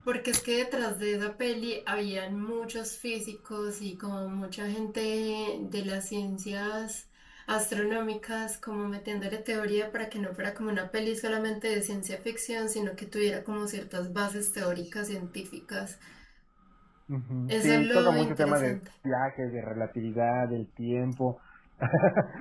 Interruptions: present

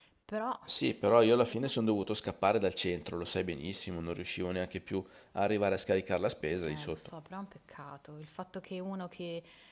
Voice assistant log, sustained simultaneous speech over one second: none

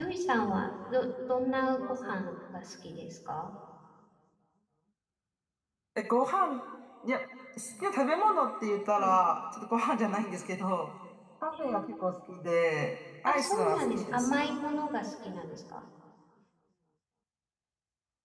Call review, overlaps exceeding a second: present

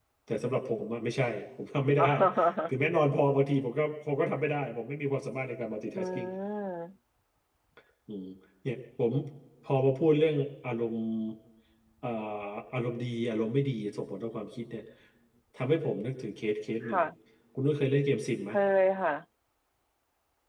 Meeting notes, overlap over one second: none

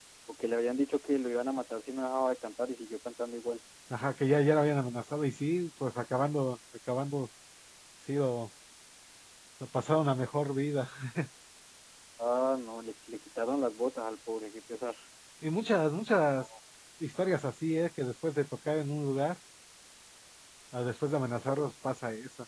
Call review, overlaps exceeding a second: none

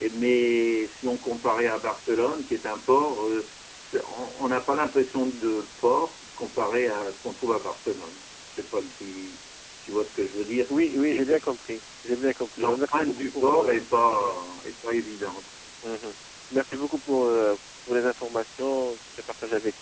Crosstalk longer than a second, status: present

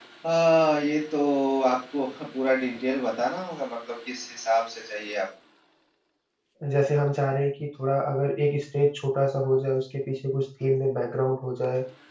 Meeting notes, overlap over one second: none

